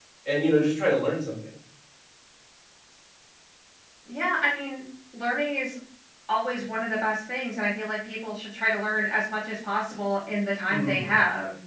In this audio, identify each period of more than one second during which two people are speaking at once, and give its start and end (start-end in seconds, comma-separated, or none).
none